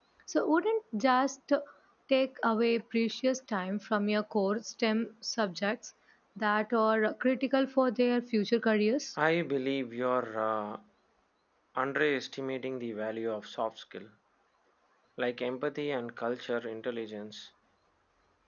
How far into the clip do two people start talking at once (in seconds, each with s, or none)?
none